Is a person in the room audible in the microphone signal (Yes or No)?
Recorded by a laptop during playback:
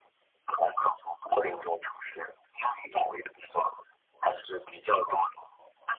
No